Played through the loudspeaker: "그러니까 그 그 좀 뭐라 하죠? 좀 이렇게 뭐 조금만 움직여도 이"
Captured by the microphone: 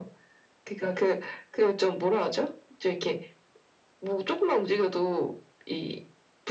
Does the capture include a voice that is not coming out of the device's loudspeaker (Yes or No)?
No